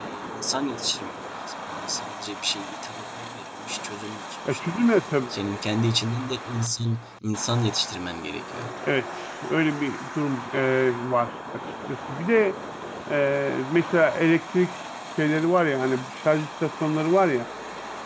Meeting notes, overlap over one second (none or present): none